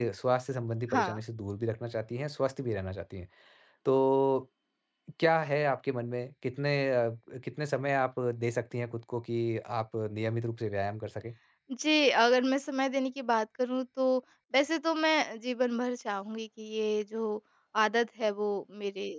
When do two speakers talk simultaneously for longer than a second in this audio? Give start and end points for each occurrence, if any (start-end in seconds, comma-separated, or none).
none